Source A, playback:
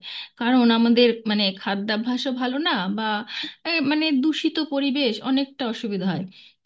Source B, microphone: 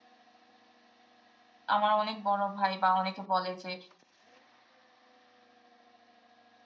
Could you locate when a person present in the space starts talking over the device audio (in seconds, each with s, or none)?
1.8 s